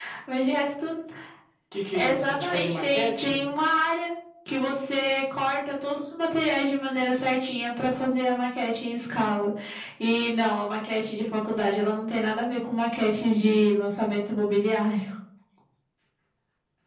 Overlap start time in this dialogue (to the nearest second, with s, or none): 2 s